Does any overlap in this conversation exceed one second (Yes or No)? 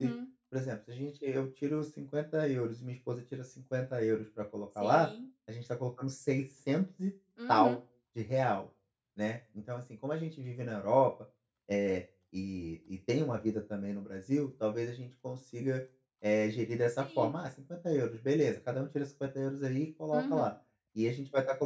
No